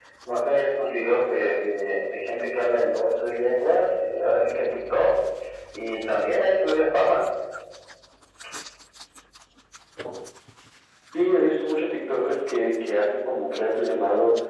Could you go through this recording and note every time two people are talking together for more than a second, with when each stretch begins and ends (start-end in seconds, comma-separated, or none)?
none